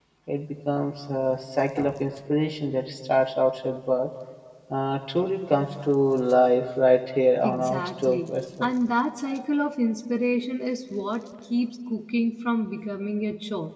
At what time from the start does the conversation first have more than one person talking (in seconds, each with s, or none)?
7.4 s